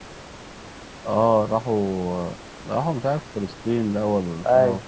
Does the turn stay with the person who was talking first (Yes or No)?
No